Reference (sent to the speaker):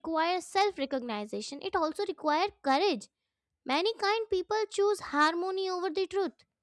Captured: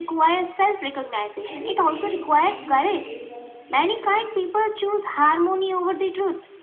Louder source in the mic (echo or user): echo